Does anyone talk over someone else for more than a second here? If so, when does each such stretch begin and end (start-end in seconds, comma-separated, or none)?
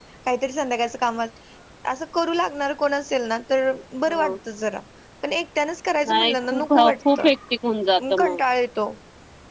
6.0-7.3